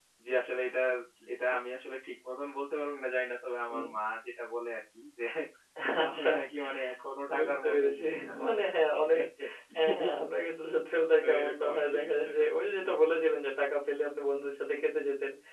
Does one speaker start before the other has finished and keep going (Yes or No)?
Yes